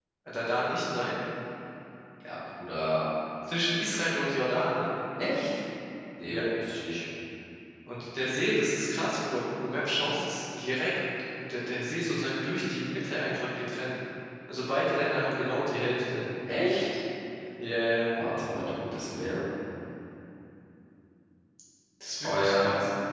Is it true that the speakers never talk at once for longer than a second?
Yes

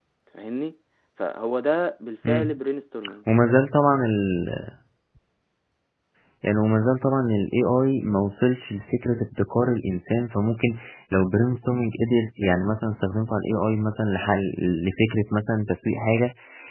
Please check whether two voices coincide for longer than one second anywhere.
No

